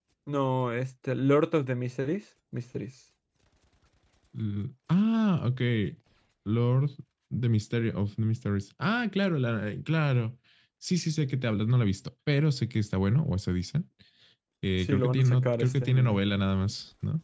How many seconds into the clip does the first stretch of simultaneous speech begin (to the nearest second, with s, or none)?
15 s